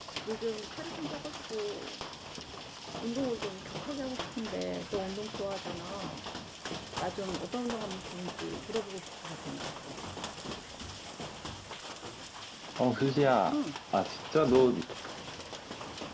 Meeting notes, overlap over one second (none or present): none